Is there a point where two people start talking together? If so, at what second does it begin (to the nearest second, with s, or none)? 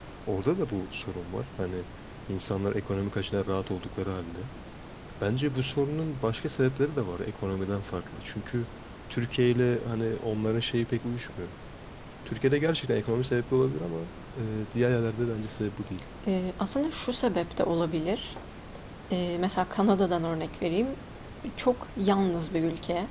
none